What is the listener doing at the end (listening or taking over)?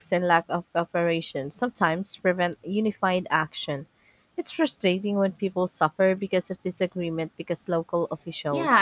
taking over